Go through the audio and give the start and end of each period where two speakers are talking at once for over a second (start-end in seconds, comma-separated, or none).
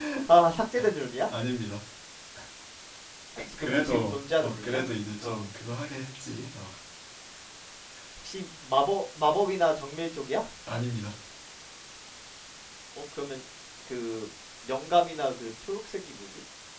3.6-4.8